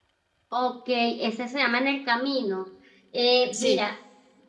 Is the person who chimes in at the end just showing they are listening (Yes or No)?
Yes